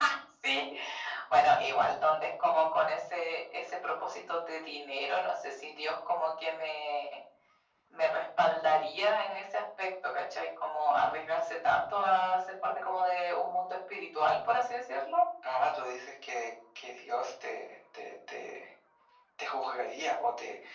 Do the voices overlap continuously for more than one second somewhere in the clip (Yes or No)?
No